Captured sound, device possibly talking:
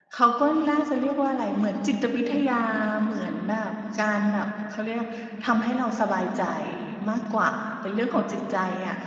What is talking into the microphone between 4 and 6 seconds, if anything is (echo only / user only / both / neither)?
user only